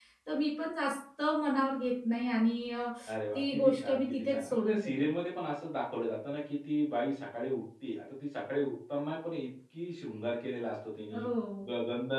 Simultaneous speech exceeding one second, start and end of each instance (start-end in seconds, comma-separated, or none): 3.3-4.9